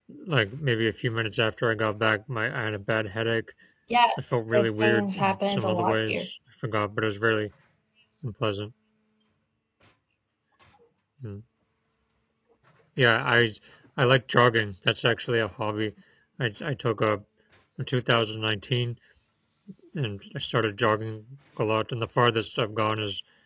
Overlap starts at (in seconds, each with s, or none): 4.5 s